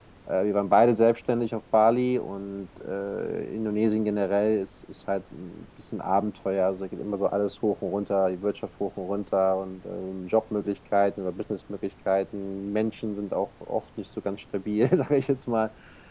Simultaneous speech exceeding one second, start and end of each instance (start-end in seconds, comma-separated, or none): none